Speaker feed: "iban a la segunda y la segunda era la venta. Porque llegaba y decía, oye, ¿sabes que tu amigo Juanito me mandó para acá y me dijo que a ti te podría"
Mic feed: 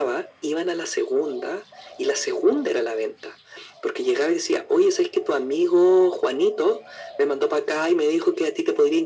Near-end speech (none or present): none